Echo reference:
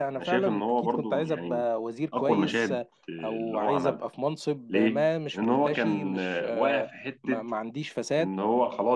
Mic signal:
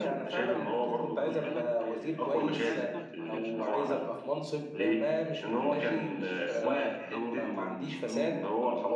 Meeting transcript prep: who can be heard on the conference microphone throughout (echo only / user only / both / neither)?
both